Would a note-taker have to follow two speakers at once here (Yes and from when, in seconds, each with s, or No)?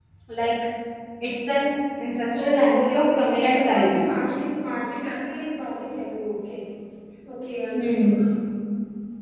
Yes, from 2.3 s